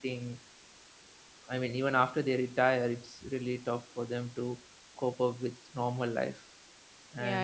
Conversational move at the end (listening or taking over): taking over